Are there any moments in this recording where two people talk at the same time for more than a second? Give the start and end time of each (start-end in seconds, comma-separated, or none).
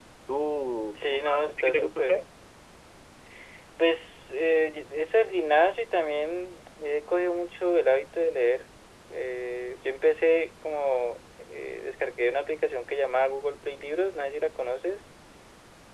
0.9-2.2